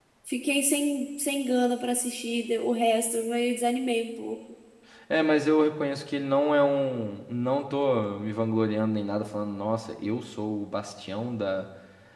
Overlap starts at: none

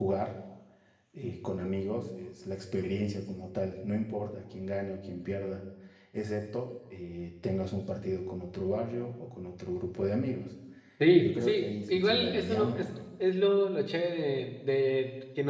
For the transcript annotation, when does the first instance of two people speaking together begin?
11.2 s

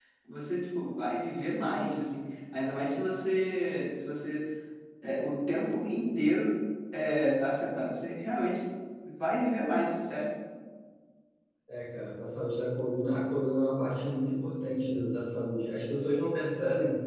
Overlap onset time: none

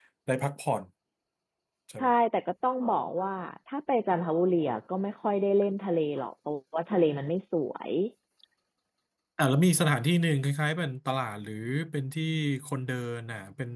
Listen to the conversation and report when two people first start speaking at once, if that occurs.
none

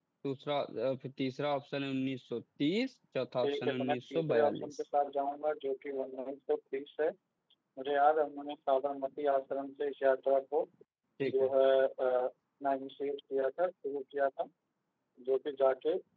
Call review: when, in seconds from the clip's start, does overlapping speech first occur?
3.4 s

